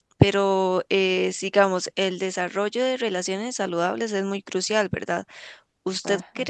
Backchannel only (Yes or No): Yes